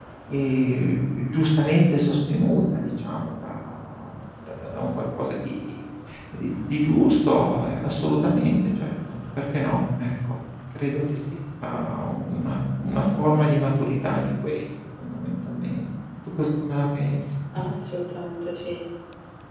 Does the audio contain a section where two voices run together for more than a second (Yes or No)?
No